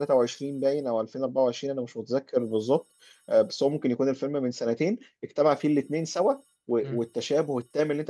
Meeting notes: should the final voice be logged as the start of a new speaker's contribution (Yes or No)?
No